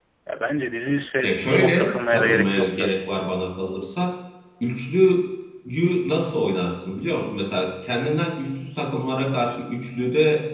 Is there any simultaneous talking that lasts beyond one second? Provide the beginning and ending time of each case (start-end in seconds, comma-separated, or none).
1.2-2.9